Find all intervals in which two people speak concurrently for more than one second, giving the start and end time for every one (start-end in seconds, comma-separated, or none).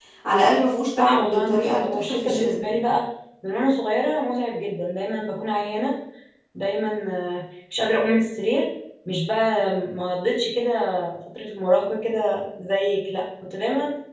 1.0-2.6